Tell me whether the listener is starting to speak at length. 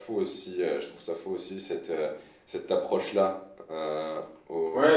Yes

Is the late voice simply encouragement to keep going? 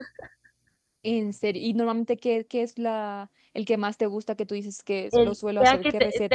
No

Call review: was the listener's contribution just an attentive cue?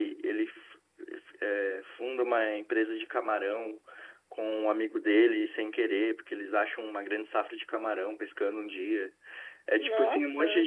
Yes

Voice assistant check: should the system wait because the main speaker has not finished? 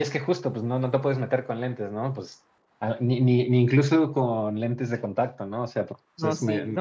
No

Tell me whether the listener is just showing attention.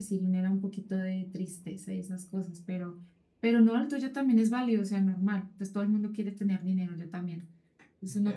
No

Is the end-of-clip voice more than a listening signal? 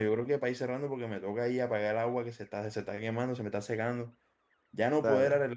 No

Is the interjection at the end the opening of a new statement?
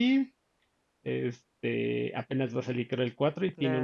Yes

